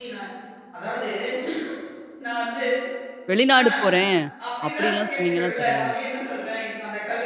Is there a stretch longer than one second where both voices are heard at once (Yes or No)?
Yes